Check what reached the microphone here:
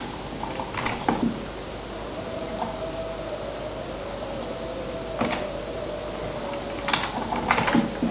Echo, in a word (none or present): none